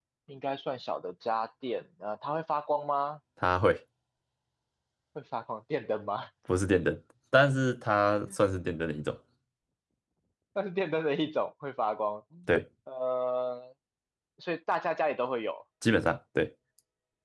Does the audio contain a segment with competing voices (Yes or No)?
No